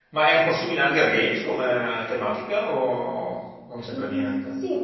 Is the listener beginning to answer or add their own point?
Yes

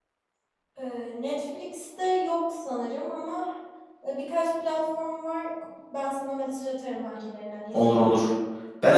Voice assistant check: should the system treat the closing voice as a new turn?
Yes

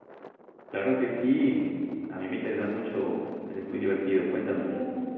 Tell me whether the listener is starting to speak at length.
Yes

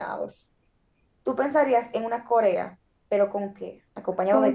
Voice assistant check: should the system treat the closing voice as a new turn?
Yes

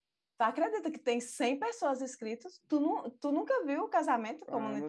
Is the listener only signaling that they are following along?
No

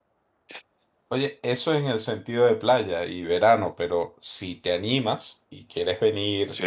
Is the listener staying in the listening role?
Yes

